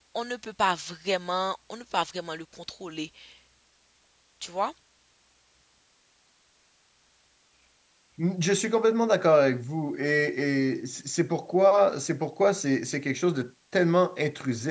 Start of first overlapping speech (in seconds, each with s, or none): none